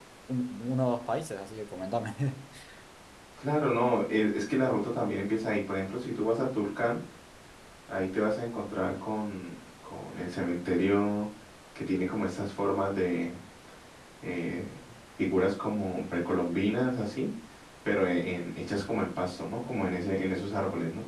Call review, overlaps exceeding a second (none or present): none